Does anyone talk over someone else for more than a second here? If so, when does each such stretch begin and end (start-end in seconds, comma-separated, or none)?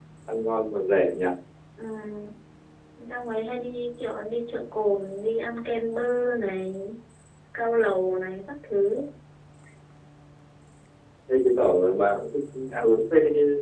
none